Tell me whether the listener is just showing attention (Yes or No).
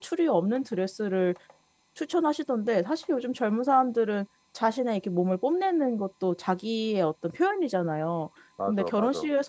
Yes